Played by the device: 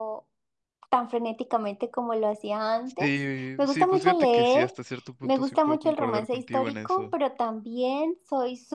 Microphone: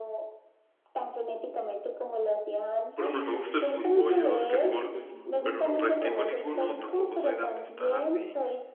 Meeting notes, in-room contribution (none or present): present